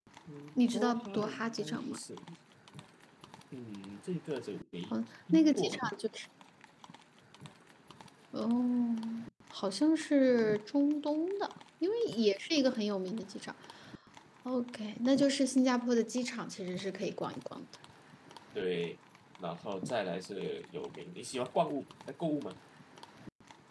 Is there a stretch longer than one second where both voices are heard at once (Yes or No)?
Yes